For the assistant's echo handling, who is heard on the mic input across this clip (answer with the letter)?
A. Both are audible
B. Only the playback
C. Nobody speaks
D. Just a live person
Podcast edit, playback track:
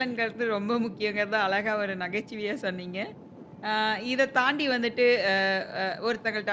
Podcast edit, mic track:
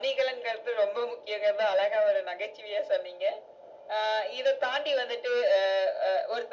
B